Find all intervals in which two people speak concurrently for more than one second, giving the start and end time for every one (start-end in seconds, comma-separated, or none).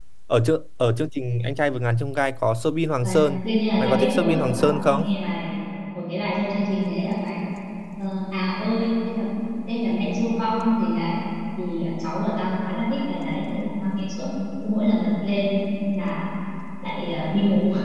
3.8-5.0